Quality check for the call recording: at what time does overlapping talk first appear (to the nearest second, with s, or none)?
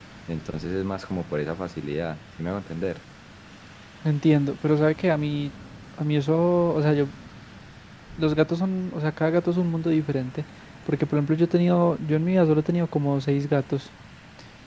none